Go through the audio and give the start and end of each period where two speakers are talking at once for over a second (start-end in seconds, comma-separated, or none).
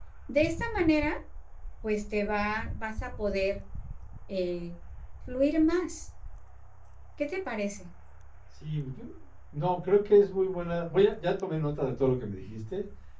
none